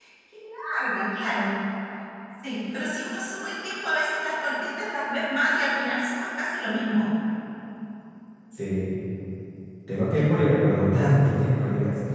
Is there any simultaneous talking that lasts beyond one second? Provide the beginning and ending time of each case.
none

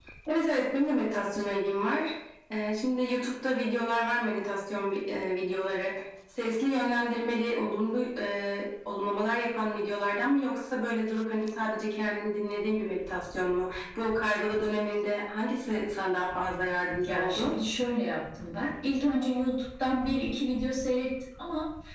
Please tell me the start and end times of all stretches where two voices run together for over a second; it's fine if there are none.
none

